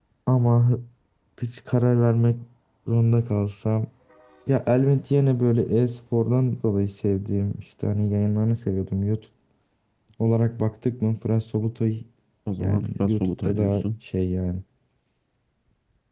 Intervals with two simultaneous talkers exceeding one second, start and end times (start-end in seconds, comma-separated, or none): 12.6-13.9